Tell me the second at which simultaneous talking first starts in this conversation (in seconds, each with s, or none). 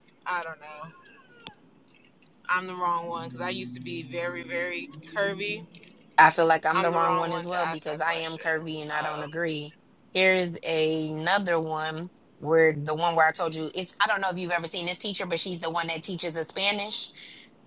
6.7 s